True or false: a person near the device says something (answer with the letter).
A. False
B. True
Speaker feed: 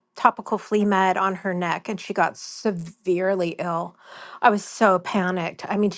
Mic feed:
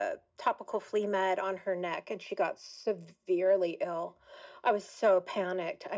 A